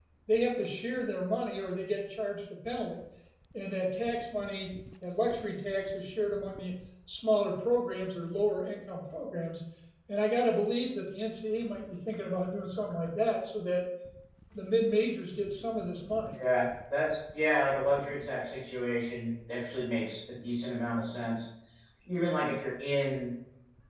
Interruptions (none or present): none